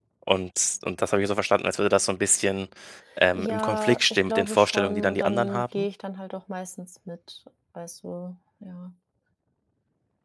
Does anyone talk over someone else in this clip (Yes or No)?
Yes